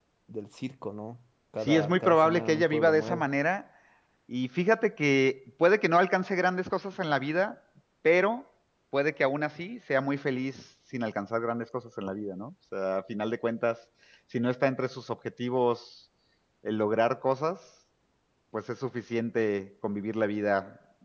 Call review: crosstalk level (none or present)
present